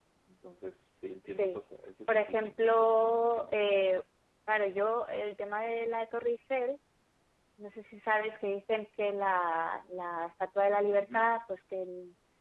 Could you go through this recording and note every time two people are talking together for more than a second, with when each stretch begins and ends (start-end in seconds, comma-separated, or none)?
2.1-3.5